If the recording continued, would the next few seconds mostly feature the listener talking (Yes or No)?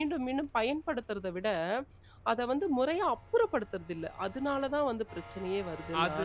Yes